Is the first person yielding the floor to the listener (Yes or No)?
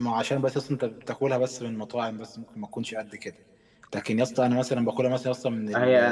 Yes